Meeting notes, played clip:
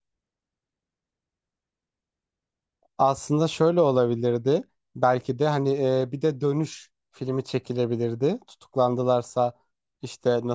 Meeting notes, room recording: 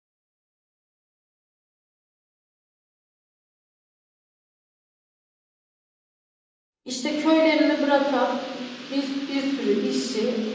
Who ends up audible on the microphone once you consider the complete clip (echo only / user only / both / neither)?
user only